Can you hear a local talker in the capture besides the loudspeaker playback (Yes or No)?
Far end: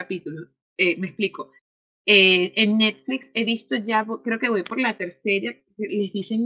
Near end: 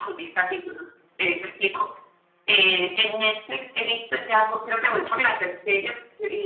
No